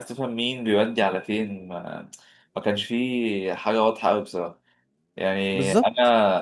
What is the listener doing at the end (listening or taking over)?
listening